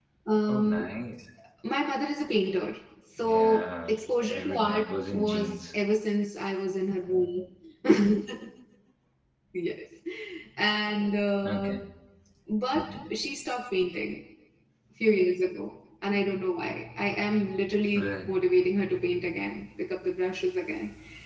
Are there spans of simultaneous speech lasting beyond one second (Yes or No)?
Yes